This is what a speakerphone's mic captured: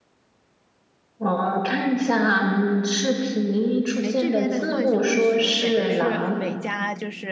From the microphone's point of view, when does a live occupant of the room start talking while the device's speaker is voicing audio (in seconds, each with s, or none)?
4.0 s